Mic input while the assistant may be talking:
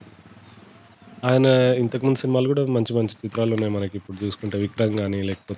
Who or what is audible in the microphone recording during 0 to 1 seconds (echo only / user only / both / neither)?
neither